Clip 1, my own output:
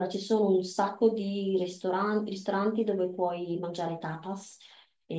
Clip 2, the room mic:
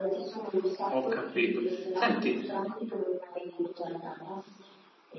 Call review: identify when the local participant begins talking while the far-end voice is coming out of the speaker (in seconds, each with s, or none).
0.9 s